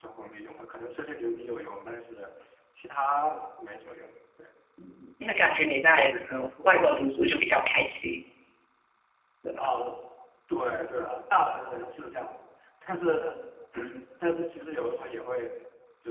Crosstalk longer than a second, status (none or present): none